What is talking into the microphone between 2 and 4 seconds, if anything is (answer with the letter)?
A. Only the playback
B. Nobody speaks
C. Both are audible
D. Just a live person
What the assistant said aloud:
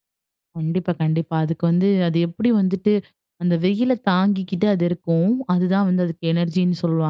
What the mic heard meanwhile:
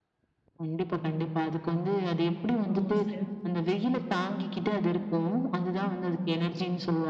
C